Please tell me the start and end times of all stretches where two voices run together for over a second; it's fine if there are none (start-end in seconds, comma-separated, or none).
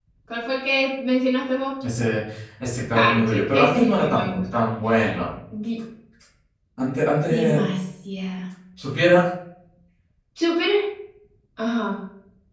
2.9-4.4